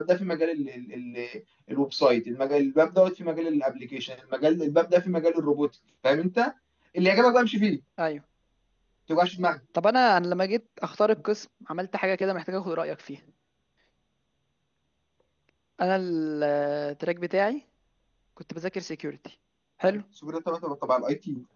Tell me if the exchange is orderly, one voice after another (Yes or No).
Yes